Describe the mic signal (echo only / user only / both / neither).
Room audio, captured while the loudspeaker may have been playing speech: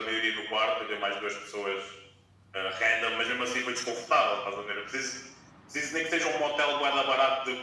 echo only